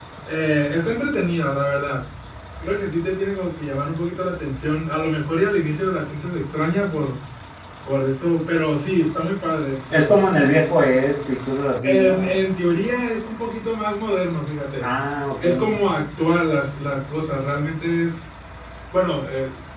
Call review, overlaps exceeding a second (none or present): none